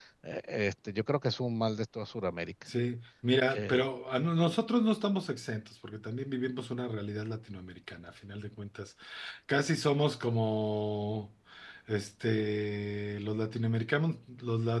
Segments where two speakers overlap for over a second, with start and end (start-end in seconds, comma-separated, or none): none